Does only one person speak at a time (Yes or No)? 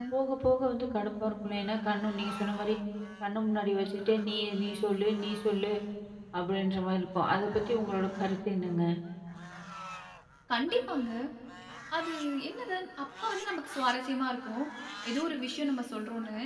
Yes